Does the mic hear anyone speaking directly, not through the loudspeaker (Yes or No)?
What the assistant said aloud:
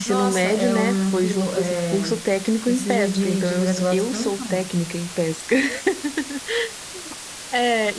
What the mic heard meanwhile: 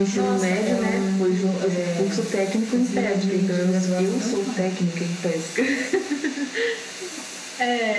No